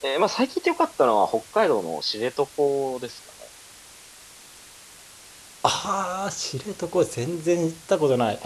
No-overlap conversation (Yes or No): Yes